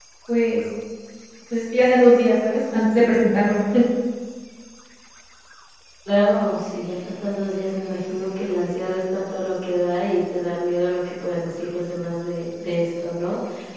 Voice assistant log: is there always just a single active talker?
Yes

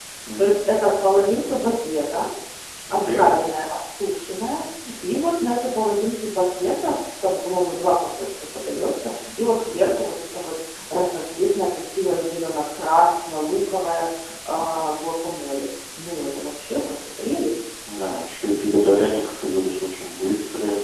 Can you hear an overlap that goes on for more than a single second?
No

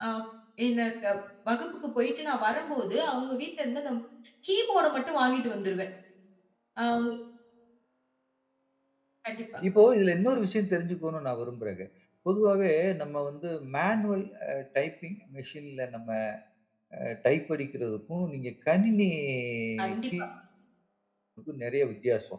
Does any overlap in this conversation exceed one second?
No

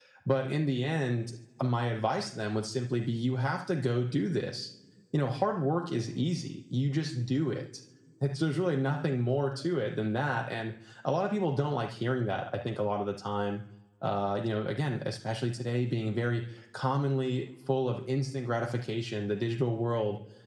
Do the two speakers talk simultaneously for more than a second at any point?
No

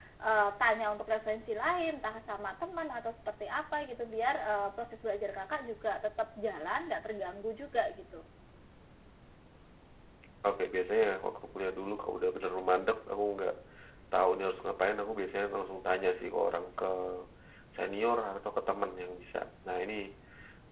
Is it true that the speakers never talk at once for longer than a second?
Yes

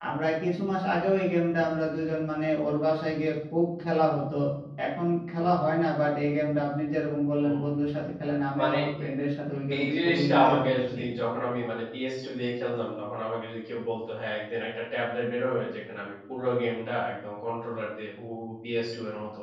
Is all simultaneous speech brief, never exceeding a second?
No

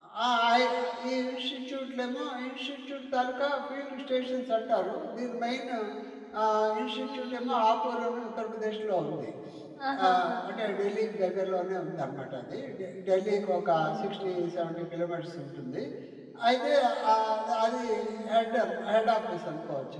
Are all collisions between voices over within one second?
Yes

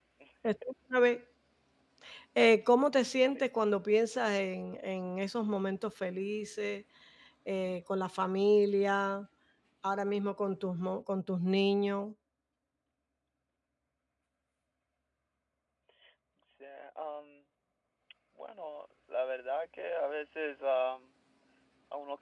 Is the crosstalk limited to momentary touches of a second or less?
Yes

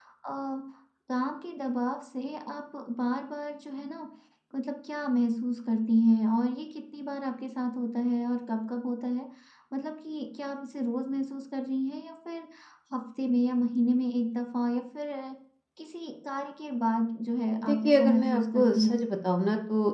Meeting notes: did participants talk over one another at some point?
Yes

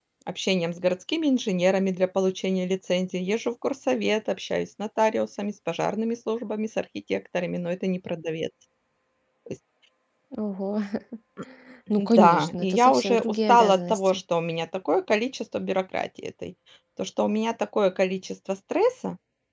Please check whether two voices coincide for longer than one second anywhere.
Yes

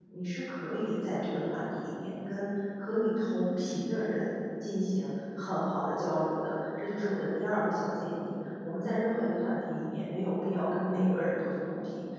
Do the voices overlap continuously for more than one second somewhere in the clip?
No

